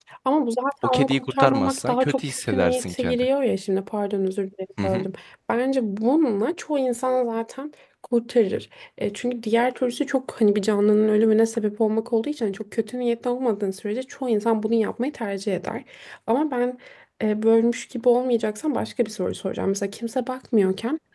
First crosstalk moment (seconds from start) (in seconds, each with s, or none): 0.8 s